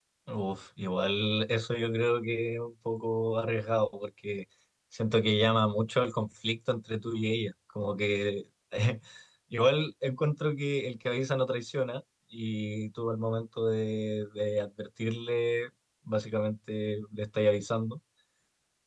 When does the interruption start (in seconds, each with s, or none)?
none